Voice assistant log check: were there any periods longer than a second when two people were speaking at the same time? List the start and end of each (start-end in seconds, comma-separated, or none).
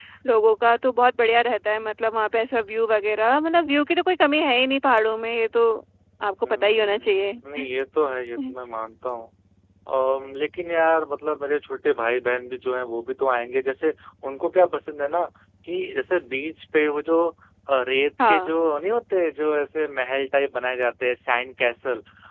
6.4-7.7